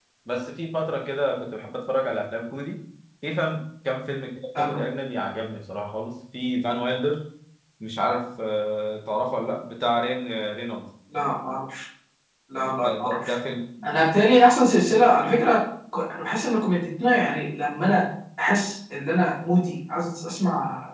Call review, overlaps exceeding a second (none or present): none